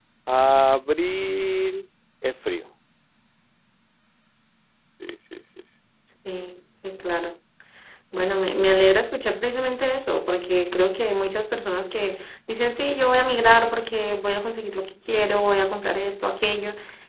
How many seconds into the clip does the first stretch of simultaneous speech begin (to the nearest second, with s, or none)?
none